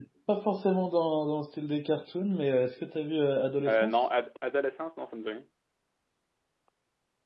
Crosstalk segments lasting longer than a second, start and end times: none

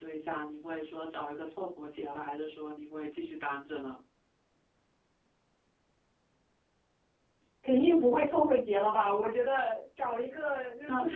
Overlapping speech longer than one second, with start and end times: none

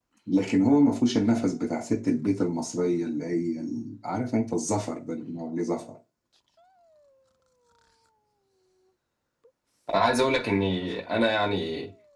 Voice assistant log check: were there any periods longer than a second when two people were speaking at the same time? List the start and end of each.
none

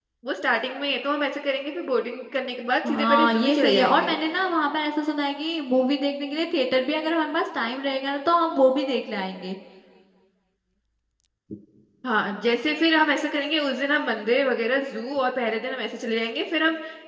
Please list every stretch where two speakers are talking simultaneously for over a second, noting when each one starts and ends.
2.9-4.2

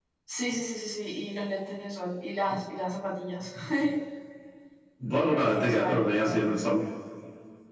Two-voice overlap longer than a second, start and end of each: 5.3-6.5

